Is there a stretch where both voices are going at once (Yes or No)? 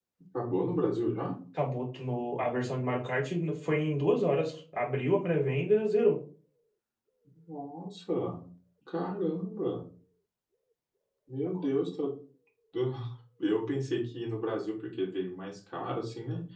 No